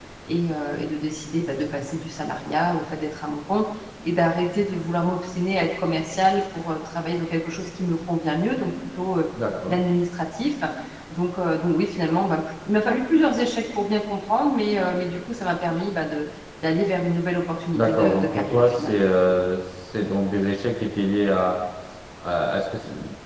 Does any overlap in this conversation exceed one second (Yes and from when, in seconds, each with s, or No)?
Yes, from 17.8 s